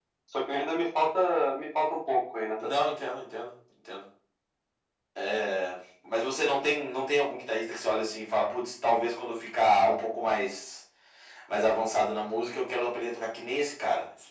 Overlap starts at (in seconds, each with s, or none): none